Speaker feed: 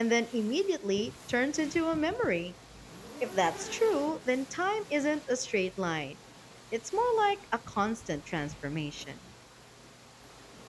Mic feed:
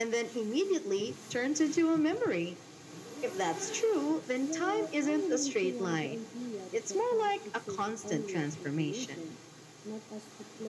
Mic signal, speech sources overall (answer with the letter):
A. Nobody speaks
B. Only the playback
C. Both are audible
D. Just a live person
C